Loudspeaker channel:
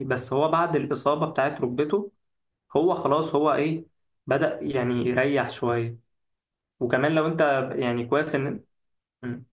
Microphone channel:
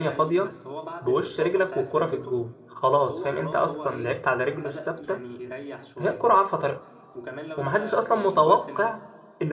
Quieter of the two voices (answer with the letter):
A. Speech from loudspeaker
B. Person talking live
A